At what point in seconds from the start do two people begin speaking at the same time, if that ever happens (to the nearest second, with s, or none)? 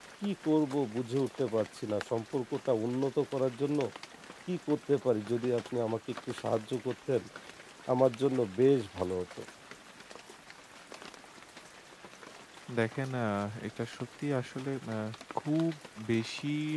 none